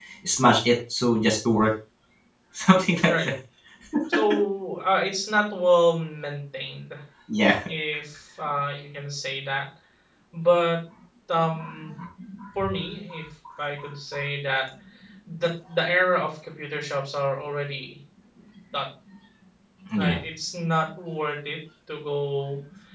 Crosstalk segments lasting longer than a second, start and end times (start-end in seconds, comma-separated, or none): none